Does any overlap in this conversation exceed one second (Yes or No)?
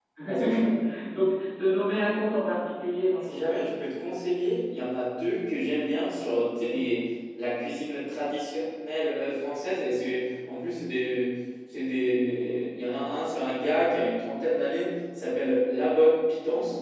No